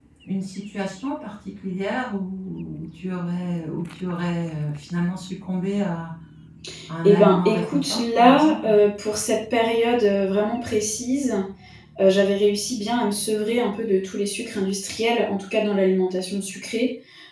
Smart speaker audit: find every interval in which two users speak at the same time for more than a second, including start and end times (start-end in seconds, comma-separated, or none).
7.0-8.7